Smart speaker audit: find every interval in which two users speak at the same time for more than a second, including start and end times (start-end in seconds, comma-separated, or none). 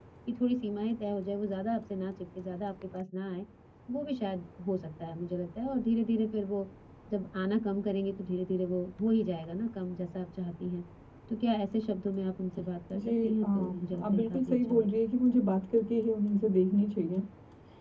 12.9-14.9